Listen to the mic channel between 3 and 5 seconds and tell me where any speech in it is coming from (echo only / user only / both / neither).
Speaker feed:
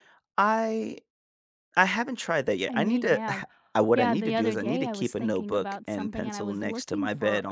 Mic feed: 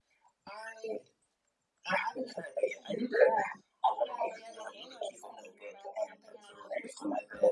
echo only